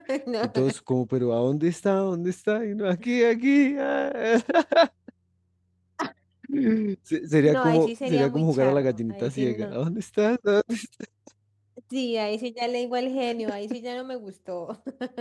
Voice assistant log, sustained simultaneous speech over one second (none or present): present